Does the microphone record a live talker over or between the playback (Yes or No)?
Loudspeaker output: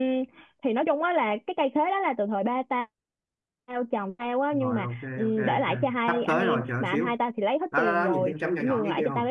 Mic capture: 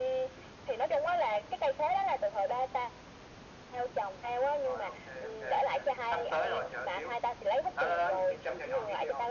No